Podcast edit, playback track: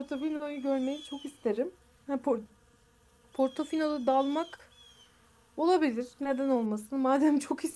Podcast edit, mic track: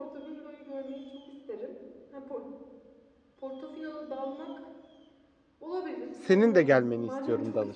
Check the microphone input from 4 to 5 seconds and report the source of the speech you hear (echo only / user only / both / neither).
echo only